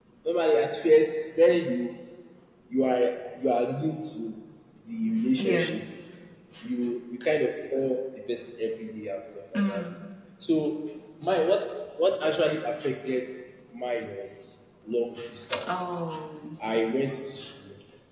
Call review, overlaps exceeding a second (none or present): none